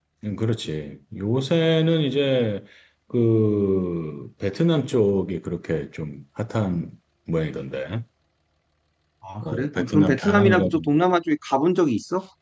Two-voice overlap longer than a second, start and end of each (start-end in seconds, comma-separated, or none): 9.4-10.9